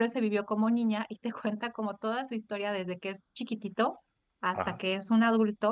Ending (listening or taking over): listening